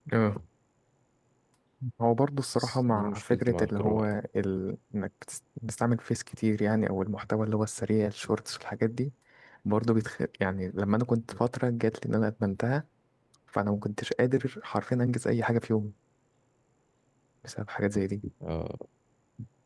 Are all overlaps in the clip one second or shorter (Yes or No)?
No